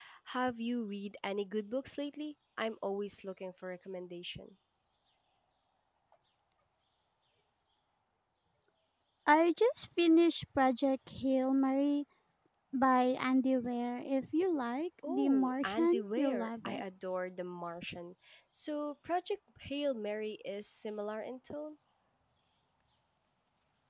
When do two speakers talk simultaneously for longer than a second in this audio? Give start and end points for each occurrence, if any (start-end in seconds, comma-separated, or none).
15.1-16.8